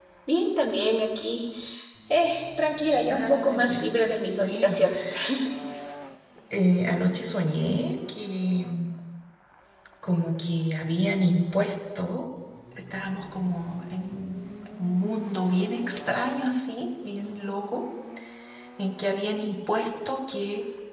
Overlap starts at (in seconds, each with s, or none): 3.1 s